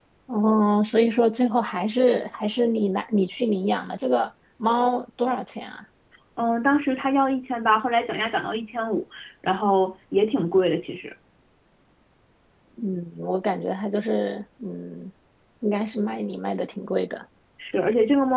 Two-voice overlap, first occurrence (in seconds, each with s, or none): none